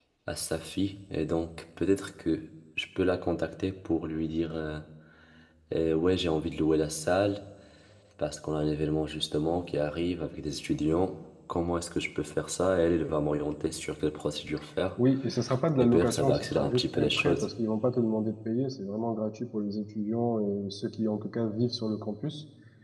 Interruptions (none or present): present